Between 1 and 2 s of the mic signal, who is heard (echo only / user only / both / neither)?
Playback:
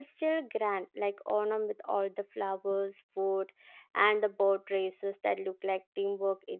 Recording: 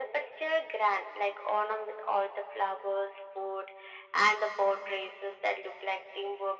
echo only